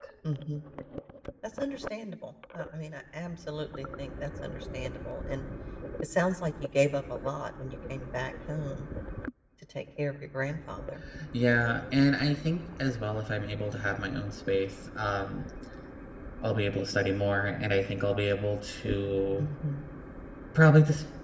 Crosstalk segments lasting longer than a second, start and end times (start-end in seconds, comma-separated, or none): none